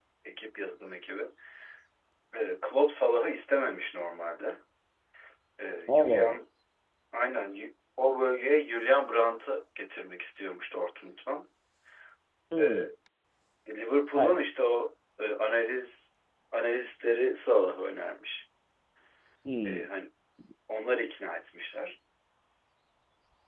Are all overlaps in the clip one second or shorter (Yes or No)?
Yes